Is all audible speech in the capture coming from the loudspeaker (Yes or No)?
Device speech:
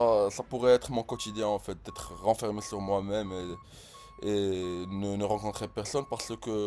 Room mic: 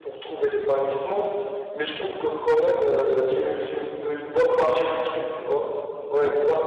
No